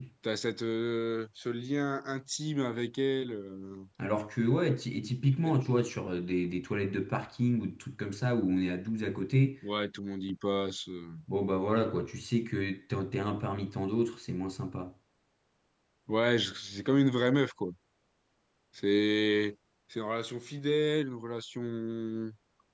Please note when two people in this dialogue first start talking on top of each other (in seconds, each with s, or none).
none